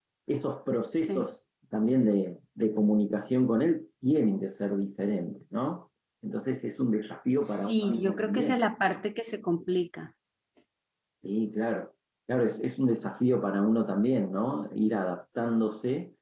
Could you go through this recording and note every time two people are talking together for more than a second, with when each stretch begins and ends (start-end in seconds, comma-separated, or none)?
7.4-8.7